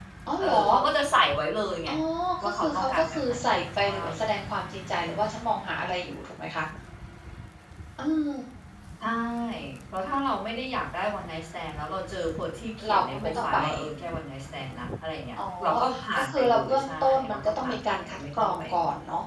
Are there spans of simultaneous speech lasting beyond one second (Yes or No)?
Yes